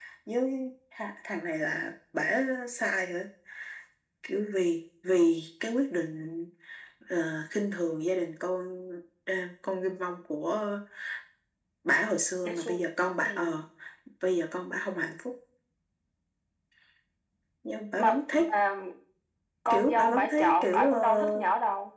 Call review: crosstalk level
present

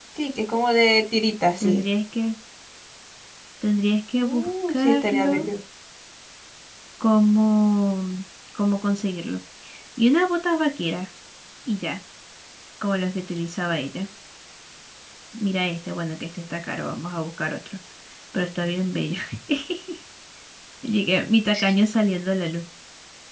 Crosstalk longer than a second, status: present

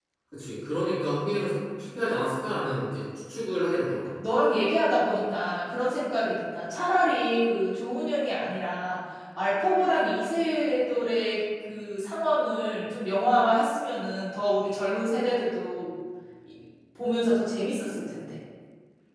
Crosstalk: none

